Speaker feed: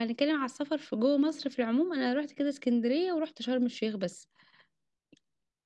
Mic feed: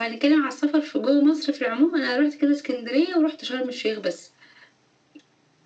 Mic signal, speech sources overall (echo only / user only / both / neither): echo only